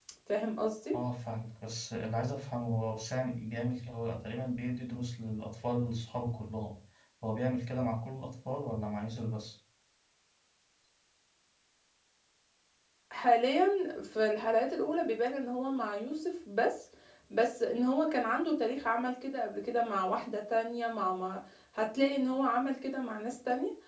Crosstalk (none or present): none